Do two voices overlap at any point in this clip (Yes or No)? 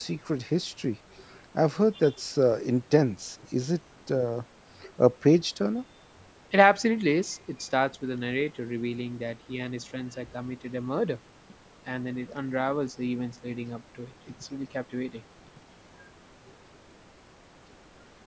No